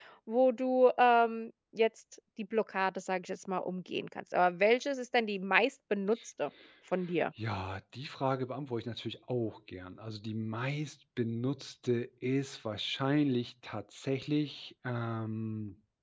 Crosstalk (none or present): none